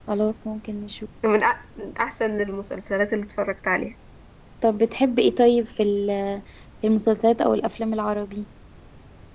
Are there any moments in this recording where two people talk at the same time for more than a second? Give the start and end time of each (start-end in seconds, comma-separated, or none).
none